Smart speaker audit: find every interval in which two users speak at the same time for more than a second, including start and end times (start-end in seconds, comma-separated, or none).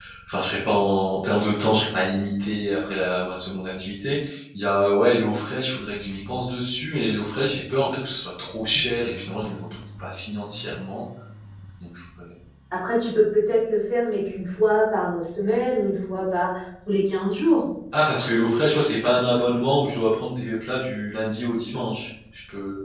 none